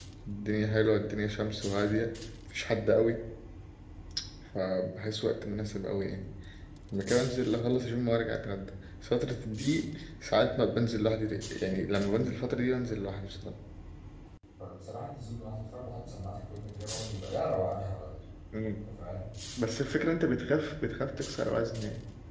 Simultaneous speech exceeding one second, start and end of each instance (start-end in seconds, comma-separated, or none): none